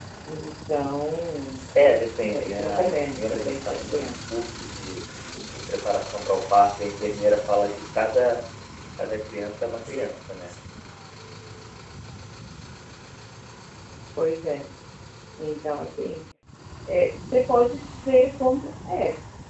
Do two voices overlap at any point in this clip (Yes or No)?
Yes